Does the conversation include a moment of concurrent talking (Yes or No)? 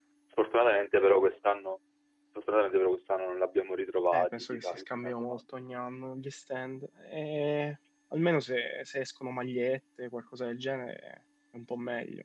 Yes